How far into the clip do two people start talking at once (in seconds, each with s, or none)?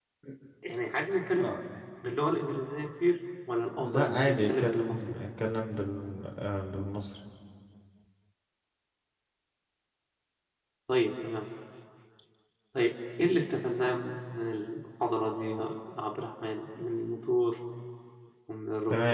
3.7 s